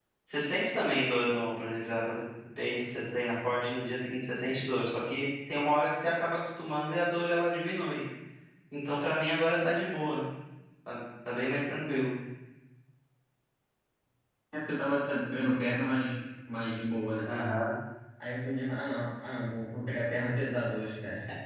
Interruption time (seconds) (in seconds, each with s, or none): none